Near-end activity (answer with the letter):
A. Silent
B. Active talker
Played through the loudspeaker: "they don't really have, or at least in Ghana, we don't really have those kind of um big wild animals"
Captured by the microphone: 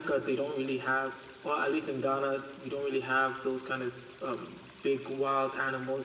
A